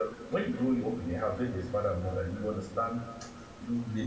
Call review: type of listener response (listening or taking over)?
listening